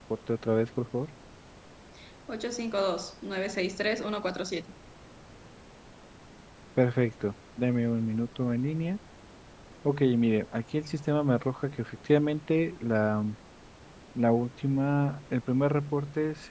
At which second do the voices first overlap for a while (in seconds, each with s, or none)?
none